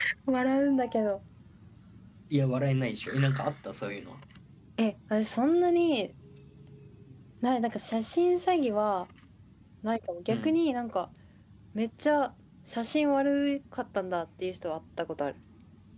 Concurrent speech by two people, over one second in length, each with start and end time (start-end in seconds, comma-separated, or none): none